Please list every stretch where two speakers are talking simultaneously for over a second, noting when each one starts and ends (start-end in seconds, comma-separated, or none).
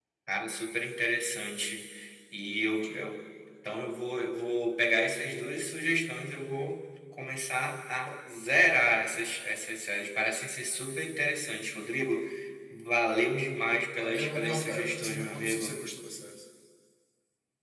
14.0-15.8